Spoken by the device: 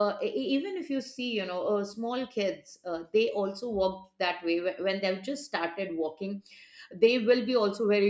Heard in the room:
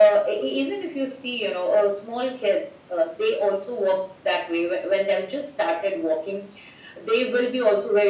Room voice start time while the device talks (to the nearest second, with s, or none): none